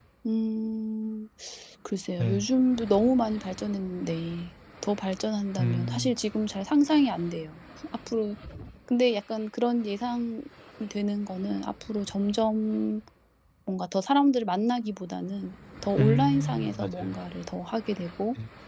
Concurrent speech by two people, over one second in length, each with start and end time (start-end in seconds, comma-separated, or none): 16.0-17.2